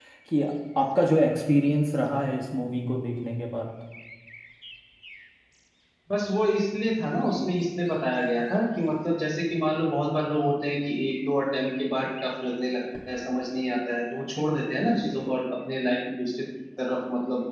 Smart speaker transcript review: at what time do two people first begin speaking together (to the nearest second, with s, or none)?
none